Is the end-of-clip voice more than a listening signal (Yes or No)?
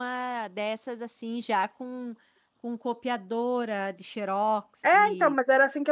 Yes